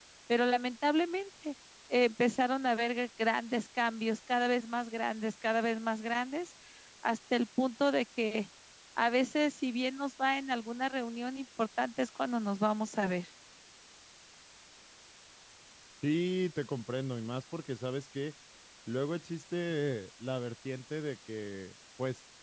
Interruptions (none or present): none